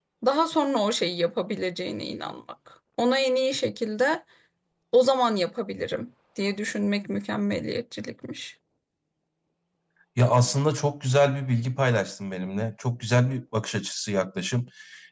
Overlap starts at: none

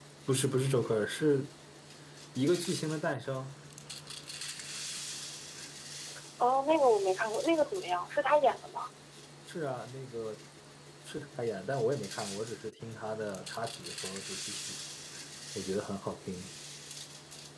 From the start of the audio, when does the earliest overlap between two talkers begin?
none

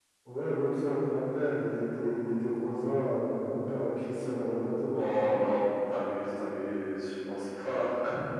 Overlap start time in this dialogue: none

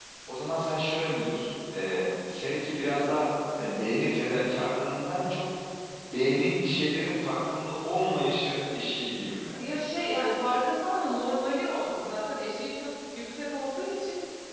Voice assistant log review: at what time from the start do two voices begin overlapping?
none

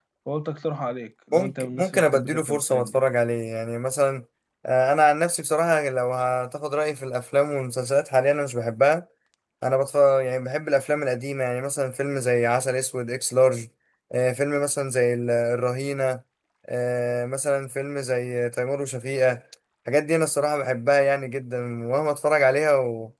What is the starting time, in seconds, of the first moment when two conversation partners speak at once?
1.3 s

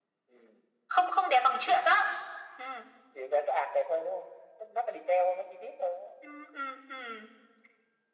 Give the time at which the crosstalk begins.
none

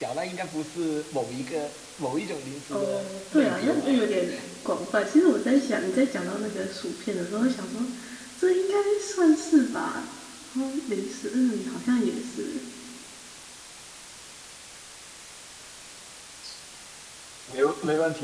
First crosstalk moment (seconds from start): 2.7 s

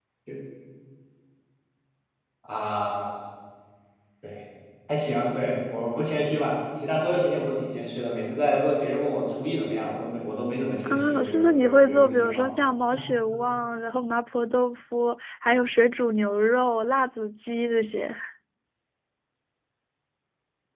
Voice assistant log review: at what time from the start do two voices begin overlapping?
10.8 s

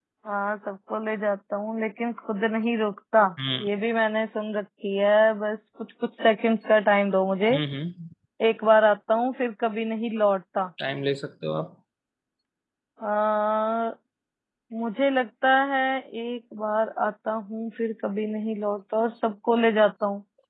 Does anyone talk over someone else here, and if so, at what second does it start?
none

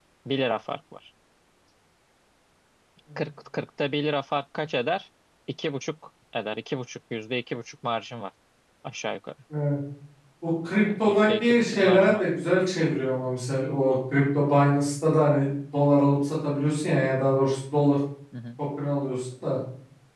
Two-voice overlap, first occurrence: 11.0 s

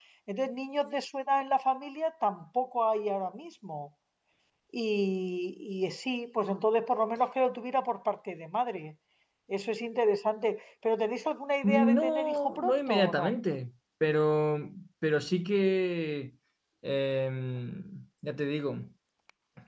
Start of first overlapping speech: 11.6 s

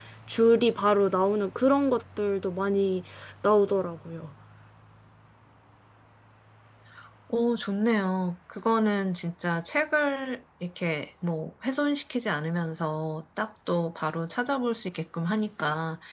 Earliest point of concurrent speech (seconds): none

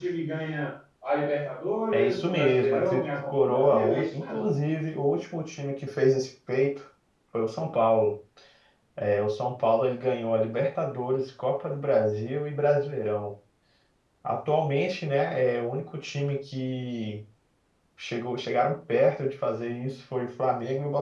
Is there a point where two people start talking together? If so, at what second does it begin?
1.9 s

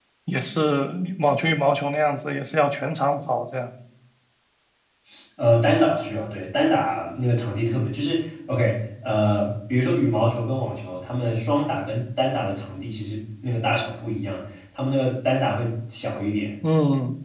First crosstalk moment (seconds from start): none

